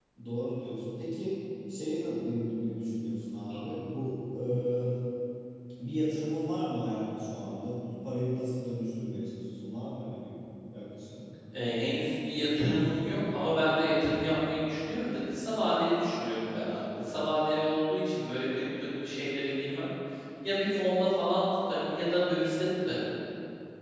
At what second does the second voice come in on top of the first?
none

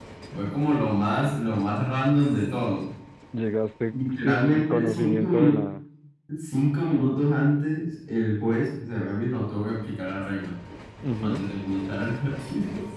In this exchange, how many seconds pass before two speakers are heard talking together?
3.9 s

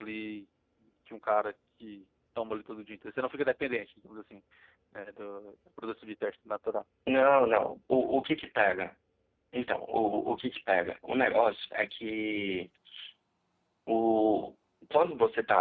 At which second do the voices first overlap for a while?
none

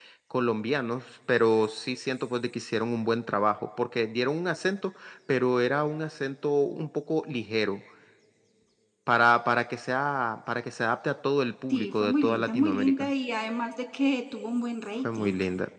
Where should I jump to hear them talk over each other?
11.7 s

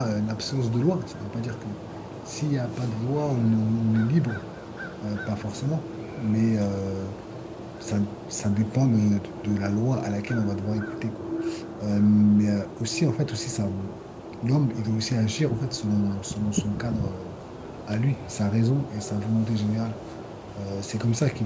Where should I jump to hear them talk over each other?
none

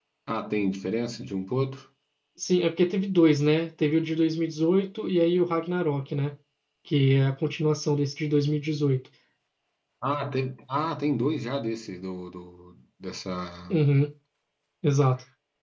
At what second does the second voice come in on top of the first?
none

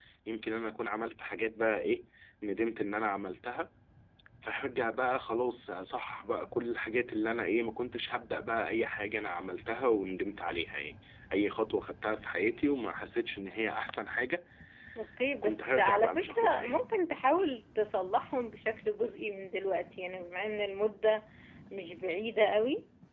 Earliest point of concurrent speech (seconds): 15.4 s

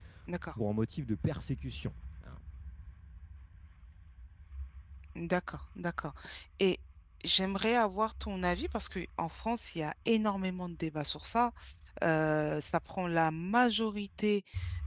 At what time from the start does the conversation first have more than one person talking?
none

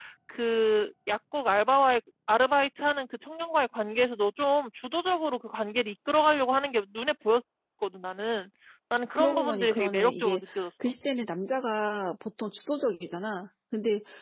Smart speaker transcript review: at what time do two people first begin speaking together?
9.2 s

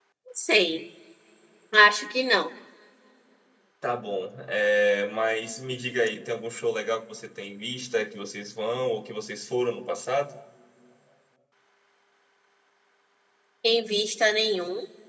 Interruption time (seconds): none

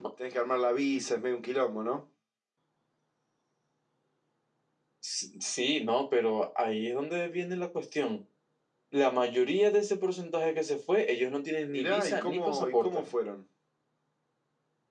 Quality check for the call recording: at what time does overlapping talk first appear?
11.7 s

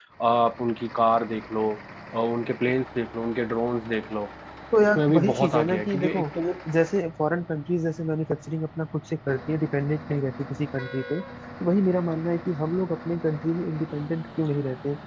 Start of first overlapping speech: 5.0 s

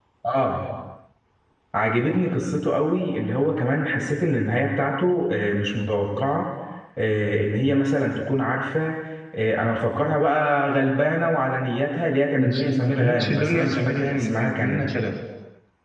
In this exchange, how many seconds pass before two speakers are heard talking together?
12.4 s

